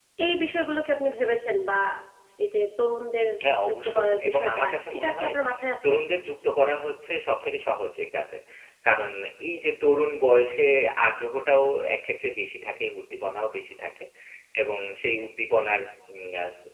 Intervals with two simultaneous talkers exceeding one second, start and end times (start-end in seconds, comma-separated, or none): 3.7-5.3